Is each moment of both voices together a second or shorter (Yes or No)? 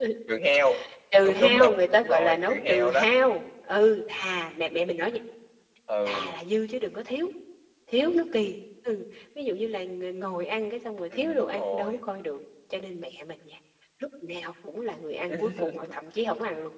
No